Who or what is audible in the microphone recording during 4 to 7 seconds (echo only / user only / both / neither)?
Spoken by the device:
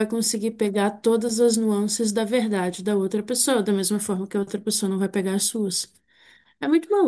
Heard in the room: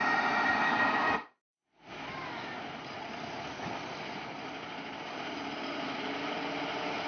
neither